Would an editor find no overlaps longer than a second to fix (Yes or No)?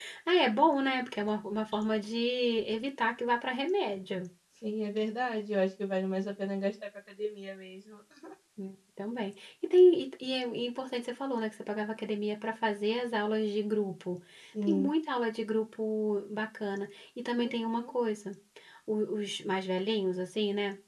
Yes